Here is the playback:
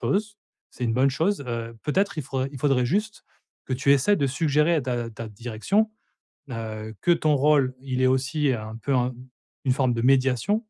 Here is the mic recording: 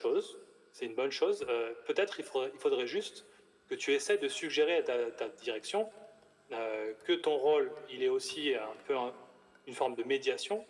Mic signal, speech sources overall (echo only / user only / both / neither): echo only